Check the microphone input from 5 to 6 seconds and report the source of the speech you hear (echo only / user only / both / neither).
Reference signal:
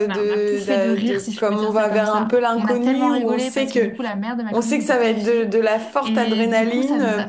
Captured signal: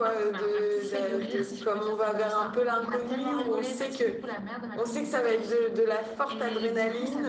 echo only